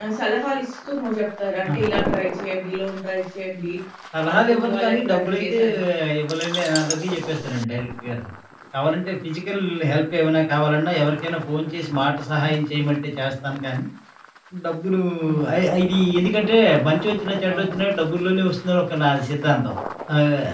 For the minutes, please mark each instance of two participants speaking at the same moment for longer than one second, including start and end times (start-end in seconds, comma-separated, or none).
4.3-5.6